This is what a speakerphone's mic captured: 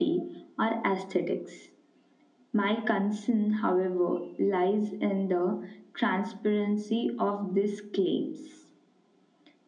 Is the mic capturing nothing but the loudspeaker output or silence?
Yes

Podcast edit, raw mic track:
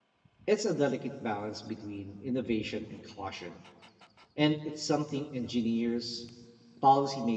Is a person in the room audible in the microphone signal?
Yes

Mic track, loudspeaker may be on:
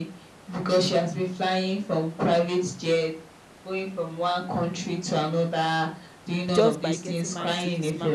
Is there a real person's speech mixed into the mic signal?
Yes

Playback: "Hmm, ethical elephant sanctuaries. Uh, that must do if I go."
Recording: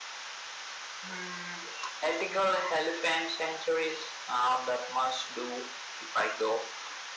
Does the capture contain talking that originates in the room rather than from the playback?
No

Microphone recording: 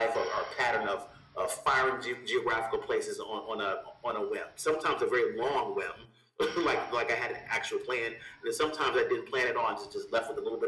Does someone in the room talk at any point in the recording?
No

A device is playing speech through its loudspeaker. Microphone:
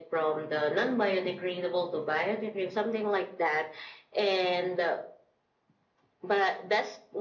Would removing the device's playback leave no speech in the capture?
Yes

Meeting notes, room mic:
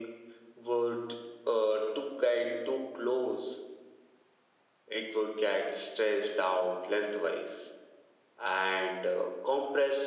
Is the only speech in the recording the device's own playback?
Yes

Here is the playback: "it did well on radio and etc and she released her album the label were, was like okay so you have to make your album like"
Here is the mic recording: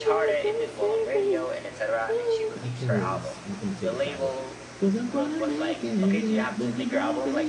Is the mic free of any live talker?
No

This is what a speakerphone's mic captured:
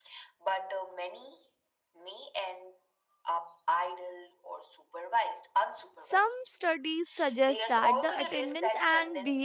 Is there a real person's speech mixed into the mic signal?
Yes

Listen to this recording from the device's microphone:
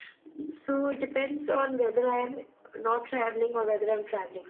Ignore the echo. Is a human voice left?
No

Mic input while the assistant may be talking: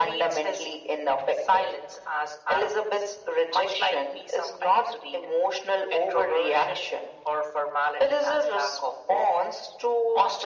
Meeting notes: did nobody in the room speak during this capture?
Yes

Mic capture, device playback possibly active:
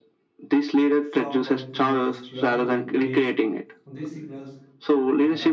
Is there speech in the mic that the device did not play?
Yes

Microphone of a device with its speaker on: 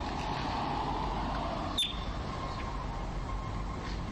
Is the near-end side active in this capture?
No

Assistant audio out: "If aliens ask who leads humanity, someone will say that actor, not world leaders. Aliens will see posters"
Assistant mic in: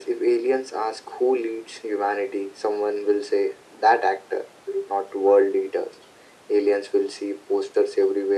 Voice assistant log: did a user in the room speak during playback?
No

